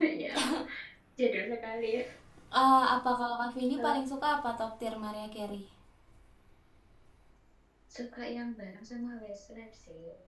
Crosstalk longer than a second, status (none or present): none